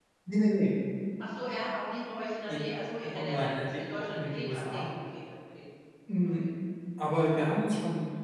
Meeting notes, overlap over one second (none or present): present